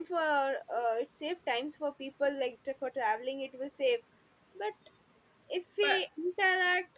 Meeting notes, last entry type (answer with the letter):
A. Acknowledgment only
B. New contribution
A